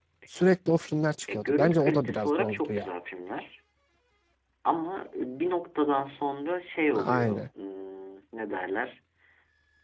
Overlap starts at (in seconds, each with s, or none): 1.3 s